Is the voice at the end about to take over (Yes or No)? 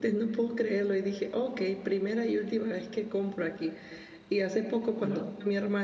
No